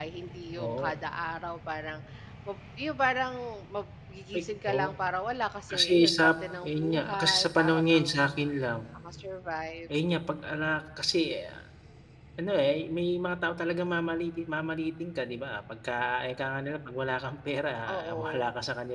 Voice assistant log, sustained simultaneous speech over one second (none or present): present